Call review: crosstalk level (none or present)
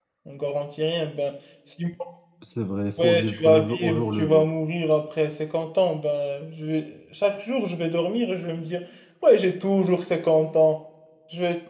present